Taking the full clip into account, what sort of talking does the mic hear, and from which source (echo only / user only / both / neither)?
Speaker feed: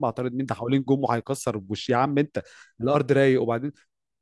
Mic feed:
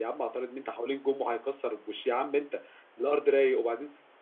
echo only